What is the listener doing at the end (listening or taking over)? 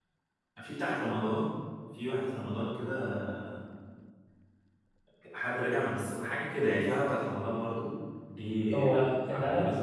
taking over